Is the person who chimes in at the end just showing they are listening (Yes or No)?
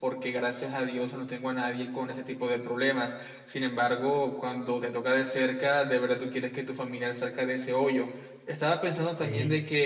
Yes